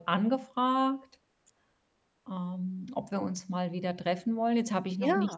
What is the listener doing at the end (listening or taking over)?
listening